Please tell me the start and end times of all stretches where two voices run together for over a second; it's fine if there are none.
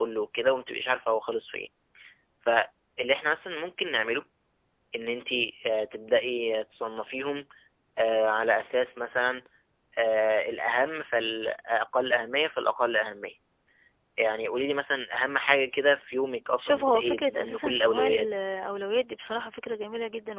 16.6-18.4

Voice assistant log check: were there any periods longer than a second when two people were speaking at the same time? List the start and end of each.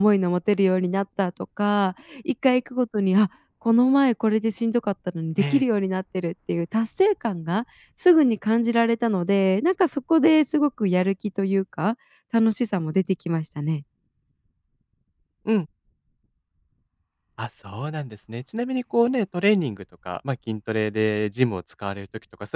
none

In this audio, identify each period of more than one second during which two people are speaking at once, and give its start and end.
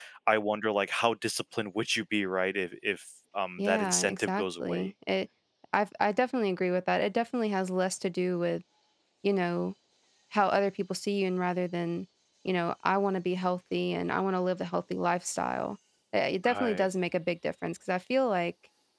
3.6-4.9

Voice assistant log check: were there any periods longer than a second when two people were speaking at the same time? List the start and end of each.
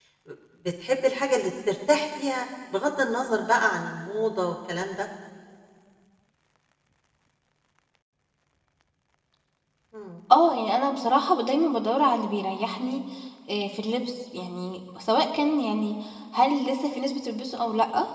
none

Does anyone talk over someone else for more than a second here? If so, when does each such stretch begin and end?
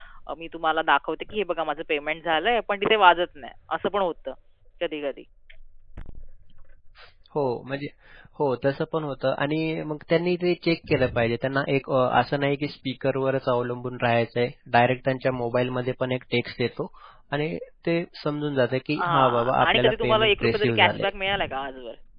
19.0-21.1

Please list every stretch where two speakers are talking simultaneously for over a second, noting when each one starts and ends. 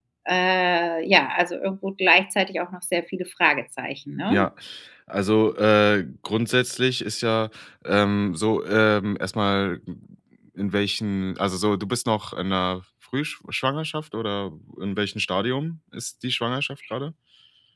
none

